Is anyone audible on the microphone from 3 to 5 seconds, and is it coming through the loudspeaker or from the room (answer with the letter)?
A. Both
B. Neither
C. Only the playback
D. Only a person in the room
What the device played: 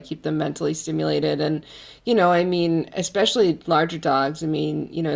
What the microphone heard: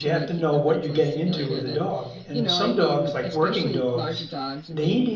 A